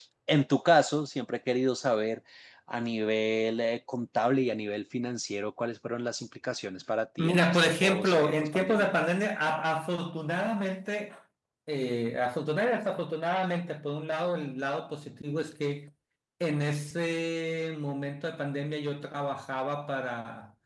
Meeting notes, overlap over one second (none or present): present